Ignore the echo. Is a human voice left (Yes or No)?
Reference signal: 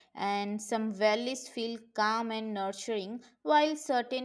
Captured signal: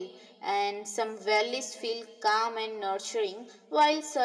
No